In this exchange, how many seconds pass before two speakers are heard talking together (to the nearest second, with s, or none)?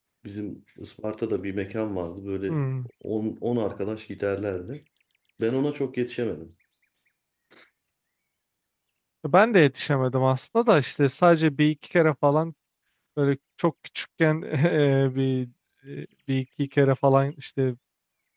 none